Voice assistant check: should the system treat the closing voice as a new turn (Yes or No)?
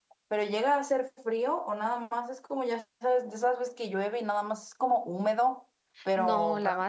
Yes